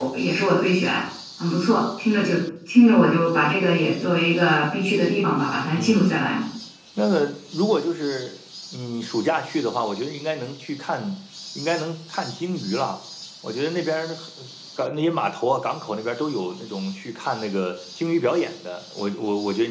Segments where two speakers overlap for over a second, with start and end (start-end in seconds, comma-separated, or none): none